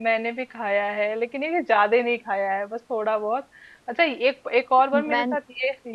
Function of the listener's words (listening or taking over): listening